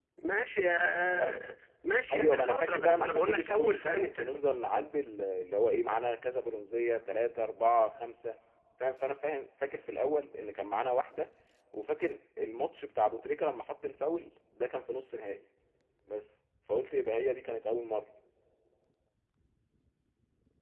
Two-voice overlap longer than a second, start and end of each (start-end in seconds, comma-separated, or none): 2.1-4.3